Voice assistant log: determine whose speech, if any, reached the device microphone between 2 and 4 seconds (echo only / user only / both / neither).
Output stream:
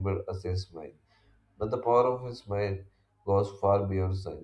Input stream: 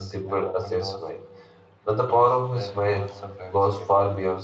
both